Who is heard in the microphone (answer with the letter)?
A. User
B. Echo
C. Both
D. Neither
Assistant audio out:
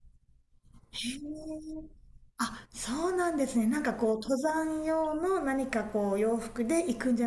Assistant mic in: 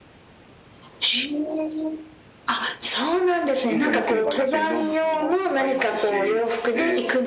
C